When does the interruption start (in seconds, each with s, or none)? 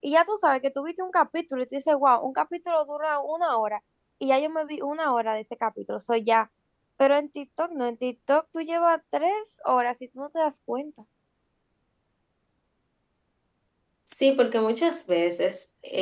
none